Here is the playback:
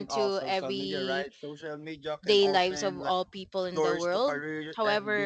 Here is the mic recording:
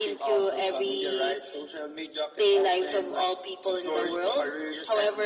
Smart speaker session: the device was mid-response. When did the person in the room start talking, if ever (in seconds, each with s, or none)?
none